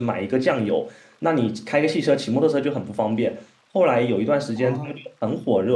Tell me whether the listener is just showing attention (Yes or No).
Yes